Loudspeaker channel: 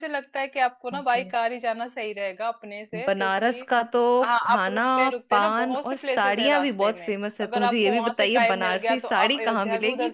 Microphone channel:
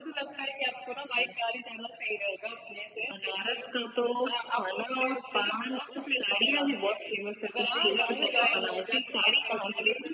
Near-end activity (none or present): present